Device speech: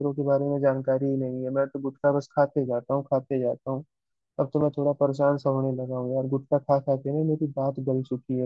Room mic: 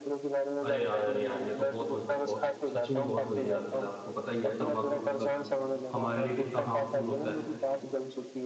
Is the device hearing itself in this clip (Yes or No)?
Yes